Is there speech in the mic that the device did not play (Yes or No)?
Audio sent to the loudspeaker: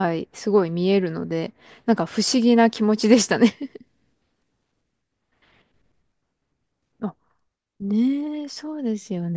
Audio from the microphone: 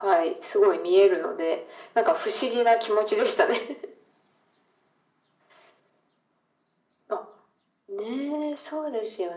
No